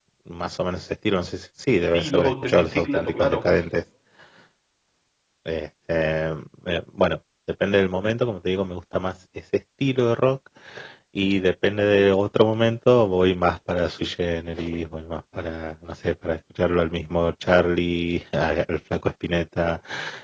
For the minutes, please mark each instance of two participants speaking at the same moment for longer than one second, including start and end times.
1.9-3.4

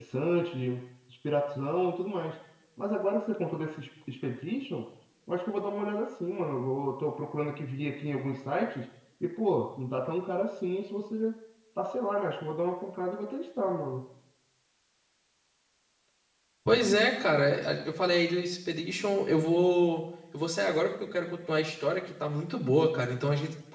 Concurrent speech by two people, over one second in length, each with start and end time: none

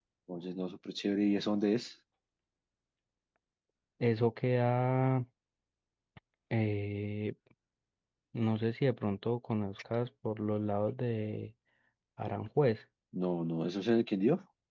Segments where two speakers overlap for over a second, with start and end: none

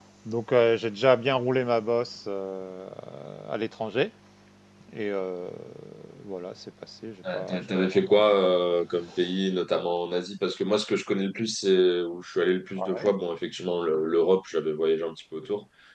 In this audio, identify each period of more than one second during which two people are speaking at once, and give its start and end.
7.3-8.5

